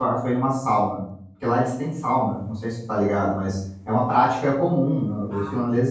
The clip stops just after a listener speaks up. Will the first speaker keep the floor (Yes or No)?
Yes